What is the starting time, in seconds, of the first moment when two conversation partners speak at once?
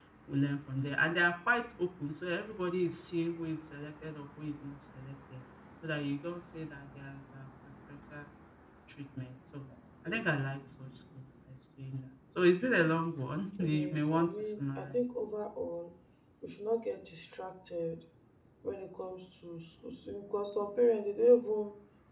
13.6 s

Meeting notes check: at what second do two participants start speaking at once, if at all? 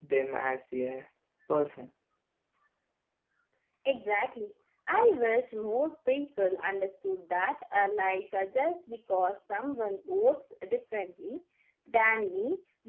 none

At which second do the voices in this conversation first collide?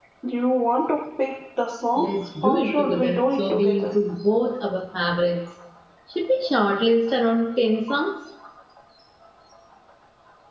2.4 s

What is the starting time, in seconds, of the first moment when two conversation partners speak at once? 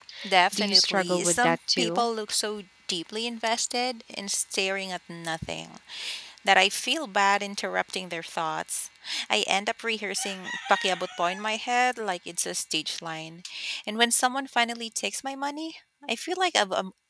0.5 s

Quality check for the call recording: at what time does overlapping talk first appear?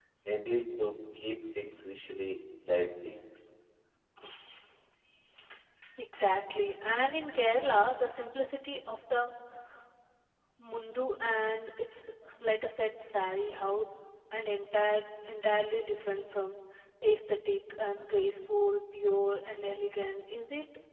none

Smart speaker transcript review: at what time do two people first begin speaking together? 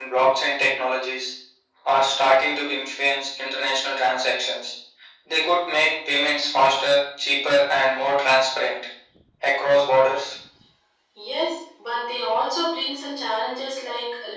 none

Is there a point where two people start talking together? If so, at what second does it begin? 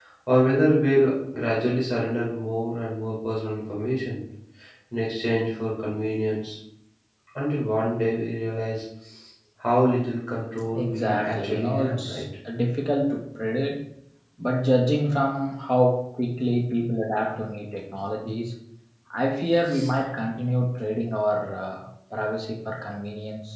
10.7 s

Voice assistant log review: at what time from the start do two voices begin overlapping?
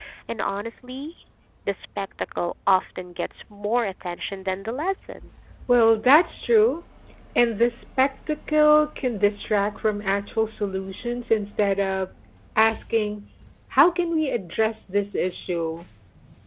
none

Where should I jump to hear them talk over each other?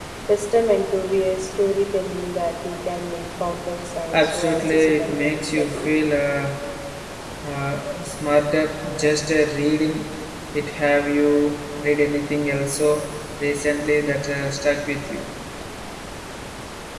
4.1 s

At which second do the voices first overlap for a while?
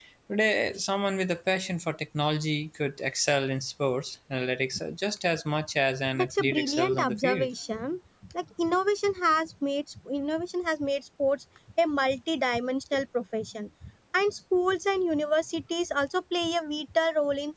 6.2 s

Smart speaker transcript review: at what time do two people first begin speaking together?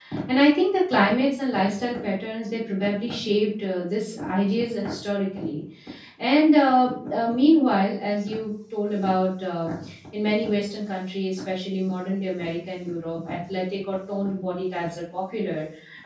none

